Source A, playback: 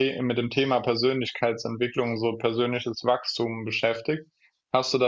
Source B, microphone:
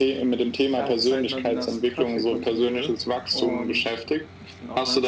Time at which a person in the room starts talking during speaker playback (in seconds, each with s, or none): 0.7 s